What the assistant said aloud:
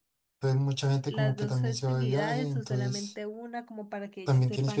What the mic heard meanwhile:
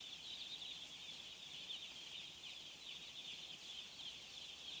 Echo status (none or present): none